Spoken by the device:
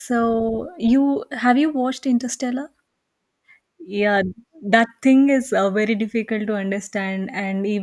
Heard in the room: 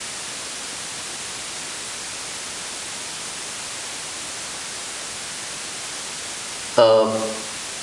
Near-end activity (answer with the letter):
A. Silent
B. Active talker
B